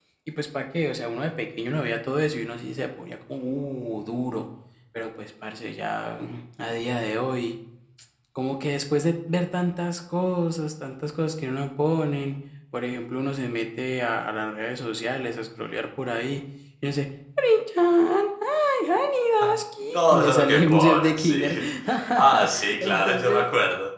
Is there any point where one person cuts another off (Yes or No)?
Yes